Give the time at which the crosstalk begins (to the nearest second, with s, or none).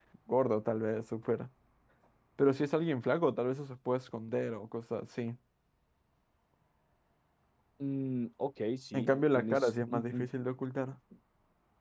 9 s